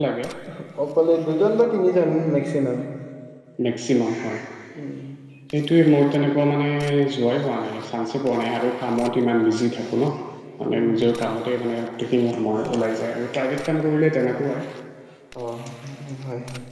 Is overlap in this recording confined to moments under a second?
Yes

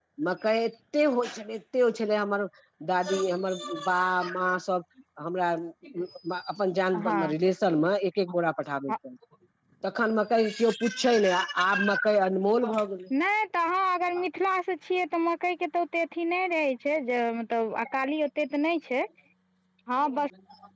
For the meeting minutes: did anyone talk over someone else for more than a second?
No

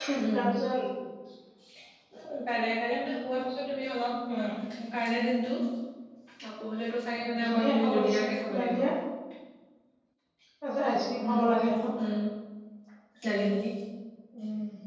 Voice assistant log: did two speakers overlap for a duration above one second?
Yes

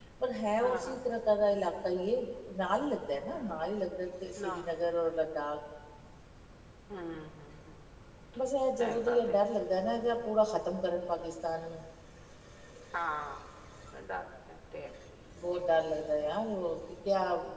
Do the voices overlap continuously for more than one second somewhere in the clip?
No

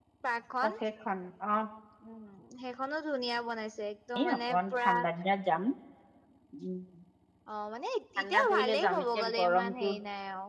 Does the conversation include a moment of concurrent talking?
Yes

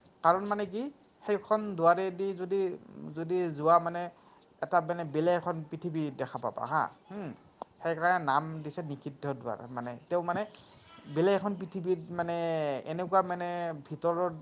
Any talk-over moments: No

